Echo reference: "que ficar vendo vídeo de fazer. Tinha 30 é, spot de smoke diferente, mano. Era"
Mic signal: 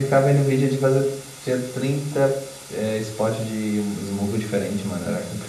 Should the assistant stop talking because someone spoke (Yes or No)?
No